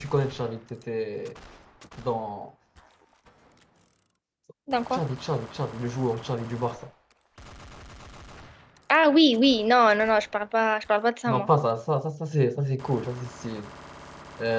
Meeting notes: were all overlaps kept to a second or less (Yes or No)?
Yes